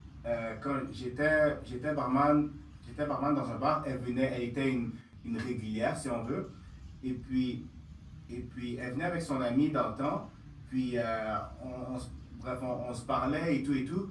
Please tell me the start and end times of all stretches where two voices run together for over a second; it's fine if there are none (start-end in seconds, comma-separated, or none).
none